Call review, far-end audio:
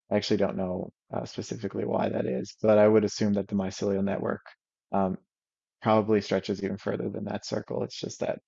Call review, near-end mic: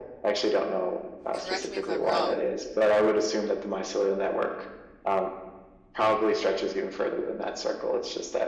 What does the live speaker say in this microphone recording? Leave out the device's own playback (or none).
correct me if I'm wrong.